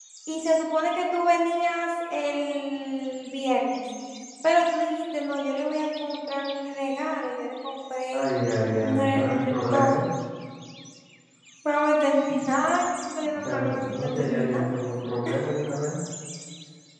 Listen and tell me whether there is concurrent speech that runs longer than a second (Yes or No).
Yes